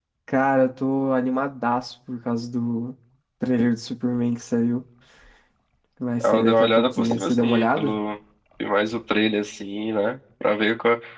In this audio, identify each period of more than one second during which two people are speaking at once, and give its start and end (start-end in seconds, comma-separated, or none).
6.2-8.0